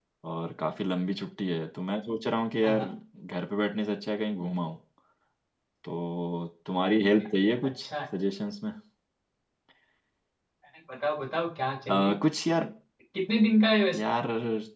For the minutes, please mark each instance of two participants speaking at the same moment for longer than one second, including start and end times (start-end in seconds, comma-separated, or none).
none